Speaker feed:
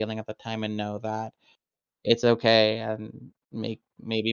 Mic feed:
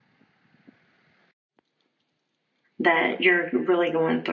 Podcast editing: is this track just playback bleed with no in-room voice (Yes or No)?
No